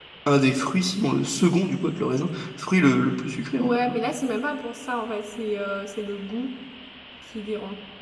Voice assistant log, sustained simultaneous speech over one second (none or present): none